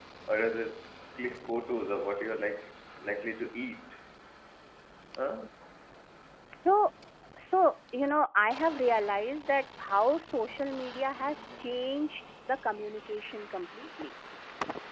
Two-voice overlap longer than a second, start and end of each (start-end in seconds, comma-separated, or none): none